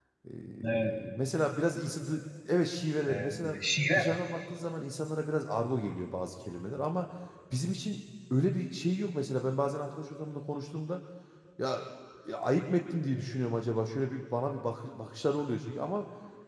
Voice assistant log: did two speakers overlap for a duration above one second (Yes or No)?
No